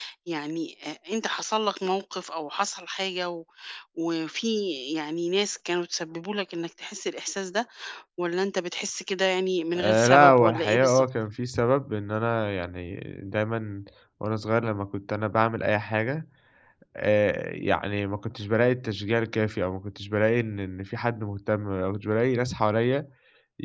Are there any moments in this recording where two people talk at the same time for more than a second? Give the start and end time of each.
9.8-11.0

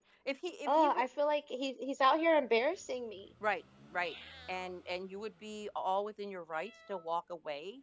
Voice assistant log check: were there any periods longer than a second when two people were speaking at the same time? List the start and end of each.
none

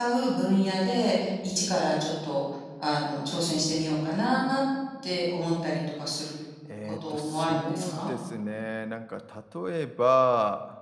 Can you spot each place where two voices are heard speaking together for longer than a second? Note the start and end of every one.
6.8-8.1

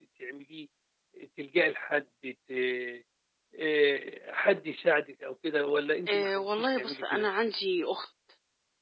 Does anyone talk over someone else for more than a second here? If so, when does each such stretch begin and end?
6.1-7.3

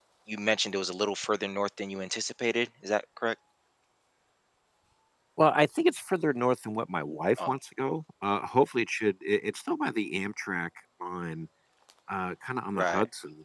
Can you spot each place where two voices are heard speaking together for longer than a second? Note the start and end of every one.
none

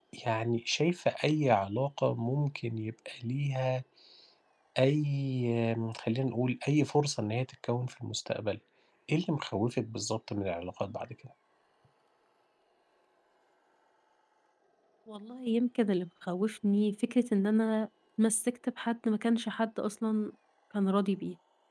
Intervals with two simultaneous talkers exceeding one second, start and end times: none

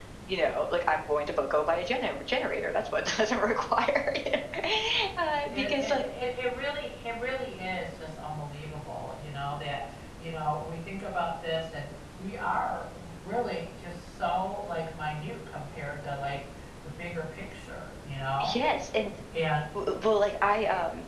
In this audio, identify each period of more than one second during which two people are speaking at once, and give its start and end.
none

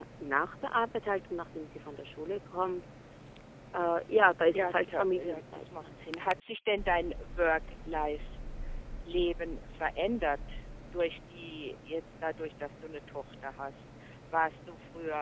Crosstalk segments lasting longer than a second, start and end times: 4.5-5.9

